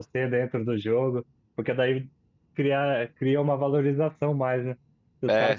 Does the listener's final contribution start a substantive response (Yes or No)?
No